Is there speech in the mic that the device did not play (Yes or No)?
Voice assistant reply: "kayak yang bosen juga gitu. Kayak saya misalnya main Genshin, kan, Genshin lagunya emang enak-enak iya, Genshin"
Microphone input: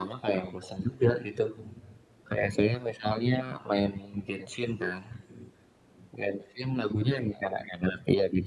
No